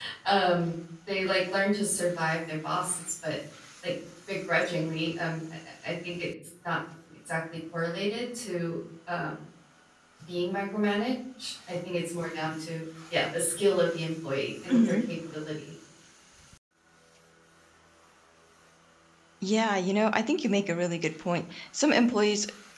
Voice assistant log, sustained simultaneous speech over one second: none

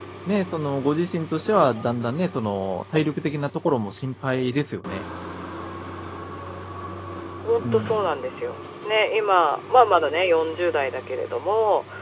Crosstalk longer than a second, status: none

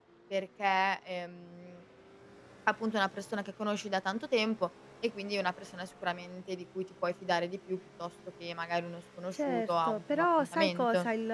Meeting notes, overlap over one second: present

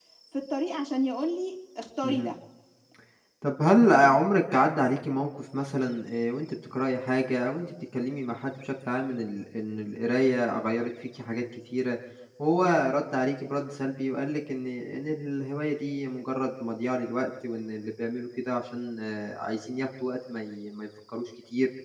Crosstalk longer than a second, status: none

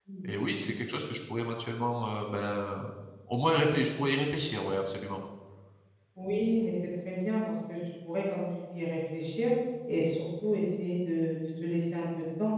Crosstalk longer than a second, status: none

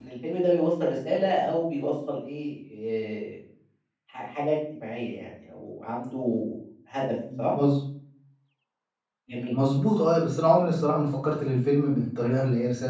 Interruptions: none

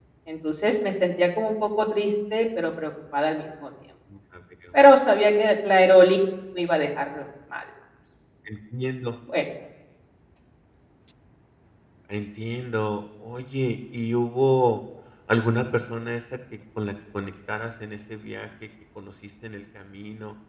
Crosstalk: none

